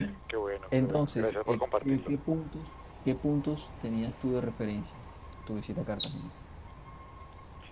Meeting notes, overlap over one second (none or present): present